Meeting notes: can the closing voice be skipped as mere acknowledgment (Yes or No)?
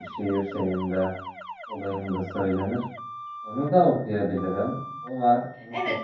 No